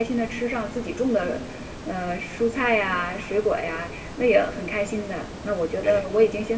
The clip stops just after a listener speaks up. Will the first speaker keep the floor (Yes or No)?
Yes